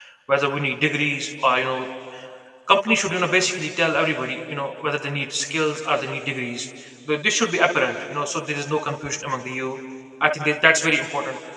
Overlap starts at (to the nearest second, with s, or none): none